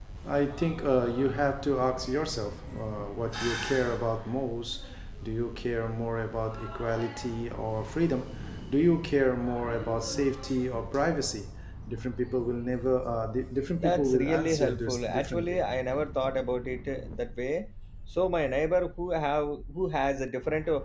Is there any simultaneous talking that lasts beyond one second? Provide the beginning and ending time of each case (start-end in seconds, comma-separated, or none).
13.8-15.6